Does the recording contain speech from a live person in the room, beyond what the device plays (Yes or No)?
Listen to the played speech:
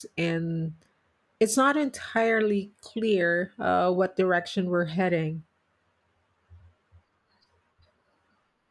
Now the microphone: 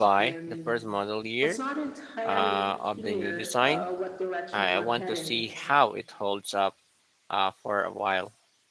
Yes